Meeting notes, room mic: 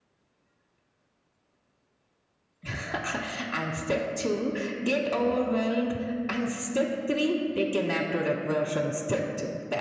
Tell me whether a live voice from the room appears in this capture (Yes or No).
No